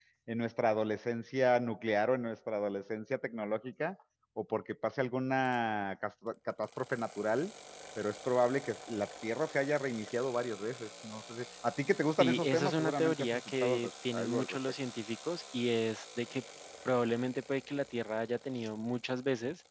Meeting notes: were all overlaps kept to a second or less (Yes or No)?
No